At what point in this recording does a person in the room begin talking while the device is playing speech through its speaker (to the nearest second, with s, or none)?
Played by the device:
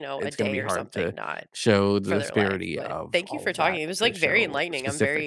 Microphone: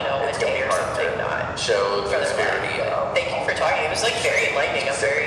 none